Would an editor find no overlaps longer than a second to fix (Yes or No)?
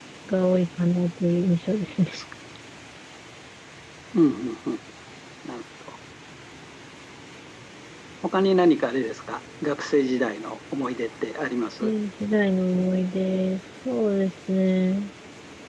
Yes